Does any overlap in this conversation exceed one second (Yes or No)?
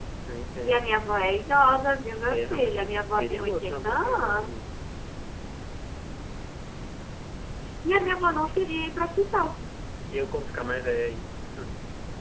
Yes